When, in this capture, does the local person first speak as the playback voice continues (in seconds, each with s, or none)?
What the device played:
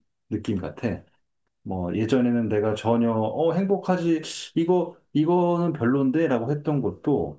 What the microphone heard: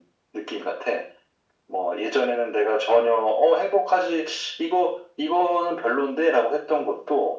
none